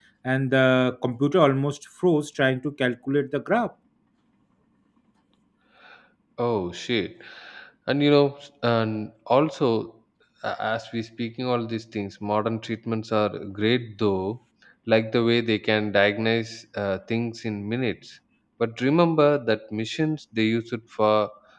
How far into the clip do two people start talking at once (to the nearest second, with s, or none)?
none